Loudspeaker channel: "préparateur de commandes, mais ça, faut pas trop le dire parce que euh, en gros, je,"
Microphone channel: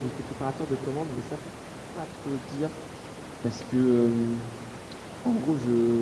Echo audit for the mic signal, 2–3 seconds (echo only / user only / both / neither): echo only